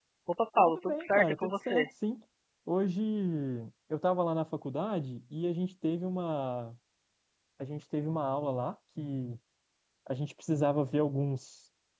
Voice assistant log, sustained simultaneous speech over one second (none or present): present